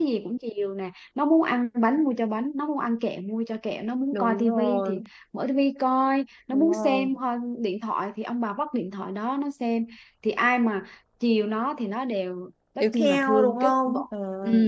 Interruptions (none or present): present